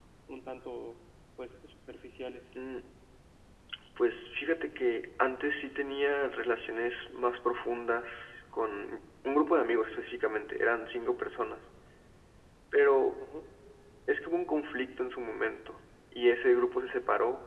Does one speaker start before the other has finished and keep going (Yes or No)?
No